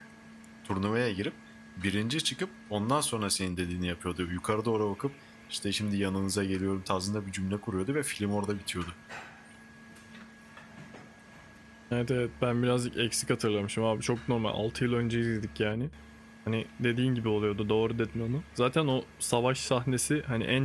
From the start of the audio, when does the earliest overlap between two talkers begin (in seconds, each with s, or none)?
none